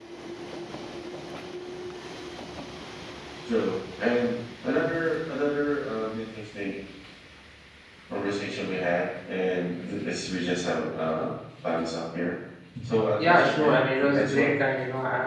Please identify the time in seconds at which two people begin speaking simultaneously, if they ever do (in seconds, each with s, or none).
13.2 s